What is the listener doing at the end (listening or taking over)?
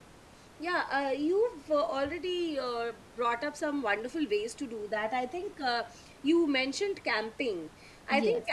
listening